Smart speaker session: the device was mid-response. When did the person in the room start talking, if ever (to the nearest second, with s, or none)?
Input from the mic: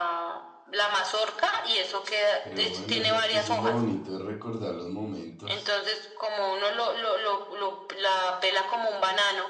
2 s